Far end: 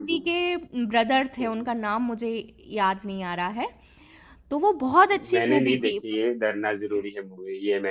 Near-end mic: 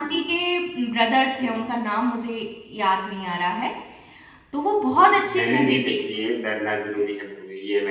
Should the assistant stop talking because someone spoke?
No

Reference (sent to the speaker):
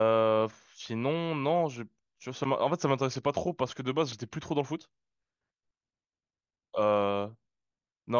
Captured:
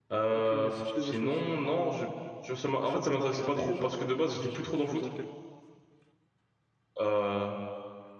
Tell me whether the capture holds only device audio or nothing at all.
No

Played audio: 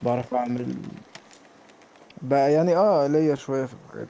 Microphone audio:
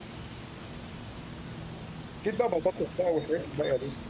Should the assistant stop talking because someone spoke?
Yes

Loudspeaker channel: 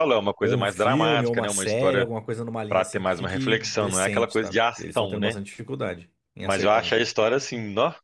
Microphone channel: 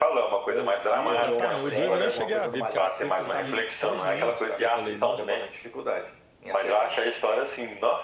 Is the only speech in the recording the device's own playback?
No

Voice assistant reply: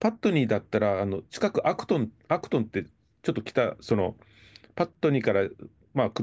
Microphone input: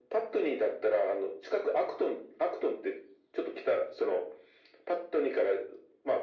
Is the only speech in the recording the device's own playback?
Yes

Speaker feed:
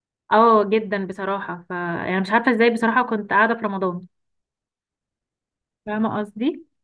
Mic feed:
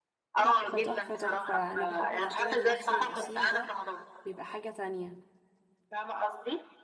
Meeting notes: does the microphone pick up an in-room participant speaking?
Yes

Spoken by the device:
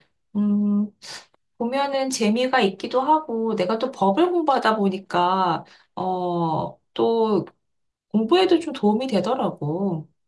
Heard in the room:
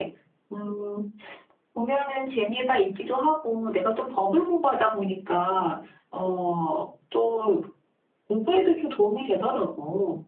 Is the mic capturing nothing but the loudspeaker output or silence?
Yes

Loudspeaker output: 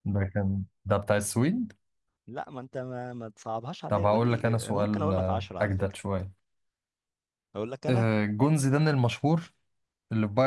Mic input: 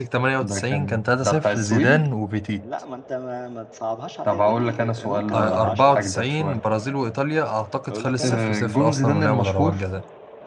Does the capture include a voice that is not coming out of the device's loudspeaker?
Yes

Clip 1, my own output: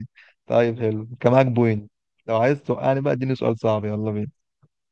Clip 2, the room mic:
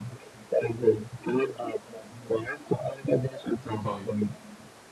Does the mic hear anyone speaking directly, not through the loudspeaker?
Yes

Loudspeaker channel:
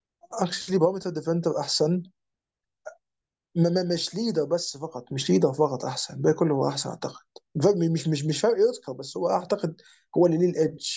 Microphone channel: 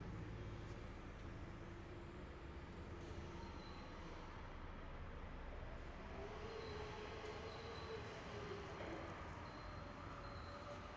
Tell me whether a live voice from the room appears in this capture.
No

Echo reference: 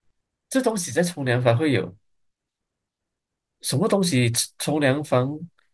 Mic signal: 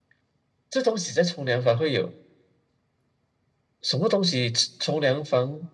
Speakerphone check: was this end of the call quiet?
Yes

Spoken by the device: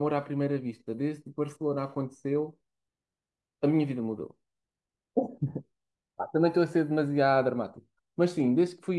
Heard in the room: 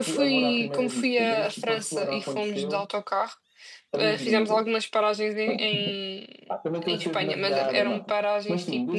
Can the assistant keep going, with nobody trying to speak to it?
No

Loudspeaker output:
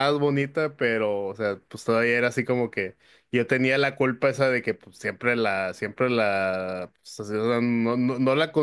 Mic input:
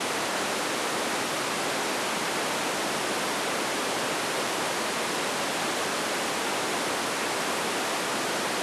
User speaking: No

